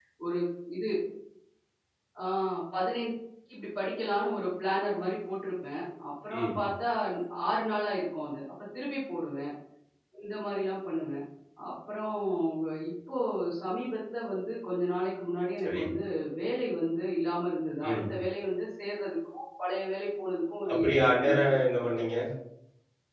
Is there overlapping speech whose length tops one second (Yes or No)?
Yes